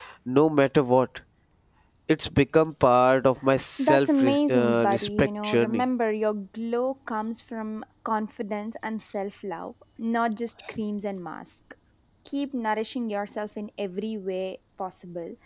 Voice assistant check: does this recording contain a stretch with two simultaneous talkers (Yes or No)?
Yes